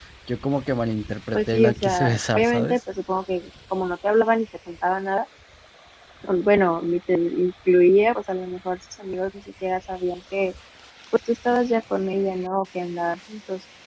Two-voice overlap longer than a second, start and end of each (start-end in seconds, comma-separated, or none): 1.3-2.8